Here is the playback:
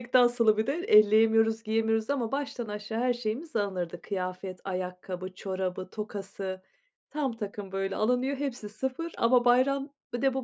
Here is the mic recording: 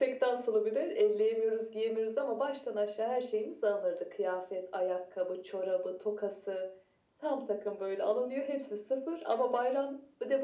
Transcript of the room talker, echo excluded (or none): none